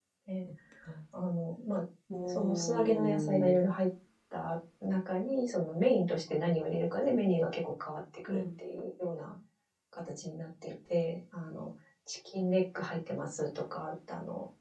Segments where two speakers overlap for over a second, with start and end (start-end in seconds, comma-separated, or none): 2.2-3.6